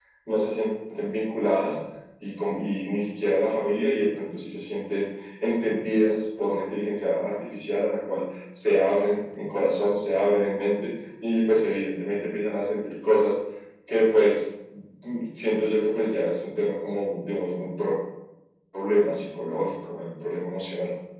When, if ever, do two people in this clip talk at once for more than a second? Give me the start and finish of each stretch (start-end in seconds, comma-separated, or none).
none